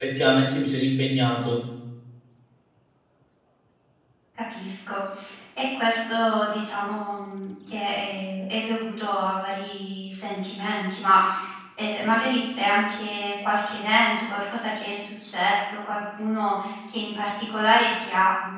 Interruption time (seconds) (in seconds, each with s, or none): none